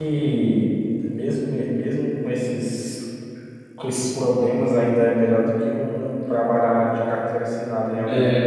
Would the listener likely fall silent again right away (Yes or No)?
No